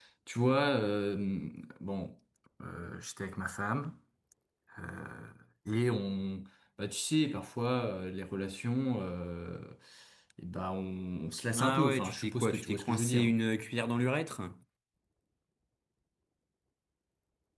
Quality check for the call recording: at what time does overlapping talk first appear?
11.5 s

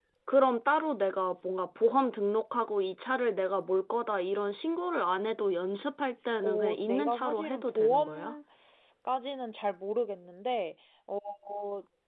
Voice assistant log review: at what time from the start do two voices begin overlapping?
6.4 s

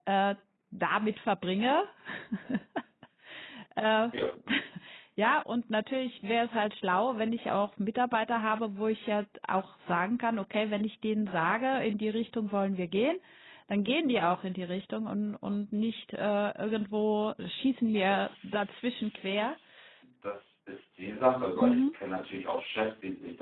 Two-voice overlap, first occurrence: 18.1 s

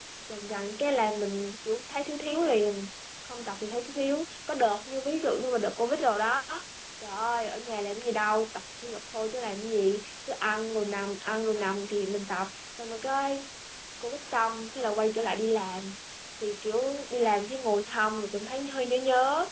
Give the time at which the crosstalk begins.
none

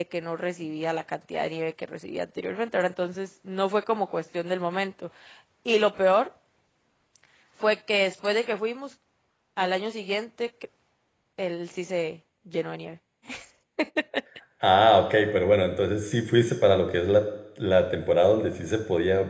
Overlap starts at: none

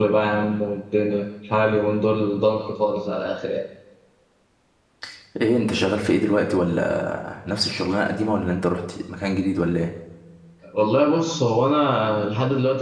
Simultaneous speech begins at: none

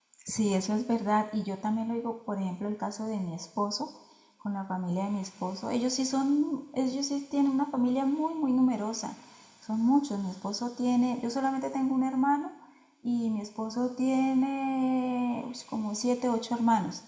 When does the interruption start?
none

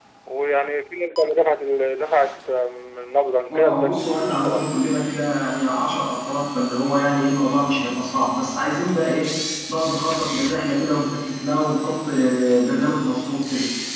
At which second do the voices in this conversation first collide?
3.5 s

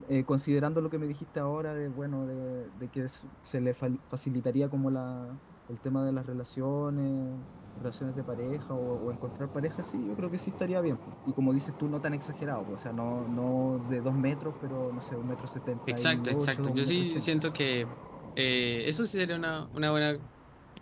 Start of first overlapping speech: 15.9 s

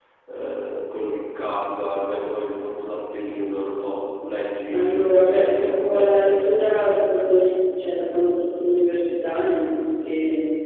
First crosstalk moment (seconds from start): 4.7 s

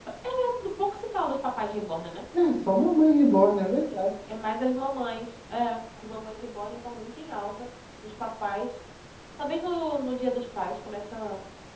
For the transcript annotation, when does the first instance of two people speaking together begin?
none

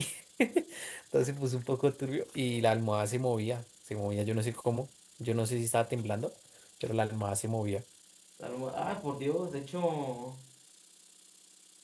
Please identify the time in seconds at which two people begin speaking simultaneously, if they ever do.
none

